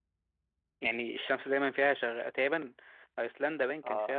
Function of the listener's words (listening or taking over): listening